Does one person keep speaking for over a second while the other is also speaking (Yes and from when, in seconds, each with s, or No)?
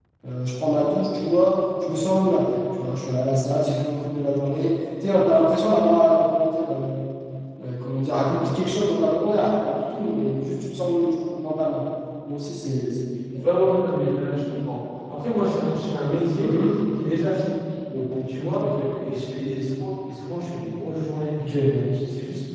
No